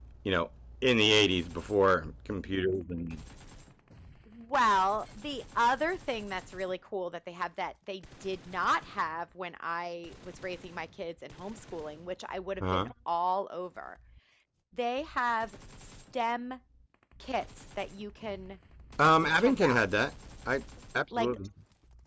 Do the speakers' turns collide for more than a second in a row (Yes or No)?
No